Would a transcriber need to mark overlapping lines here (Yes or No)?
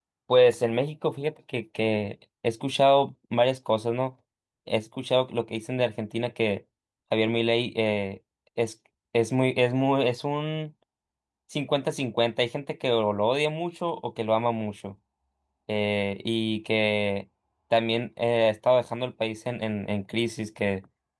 No